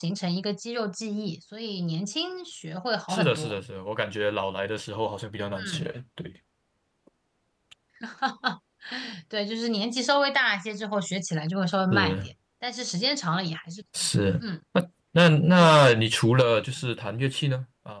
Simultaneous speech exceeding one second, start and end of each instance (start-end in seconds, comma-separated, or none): none